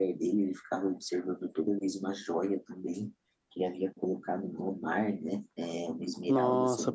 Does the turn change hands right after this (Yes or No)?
Yes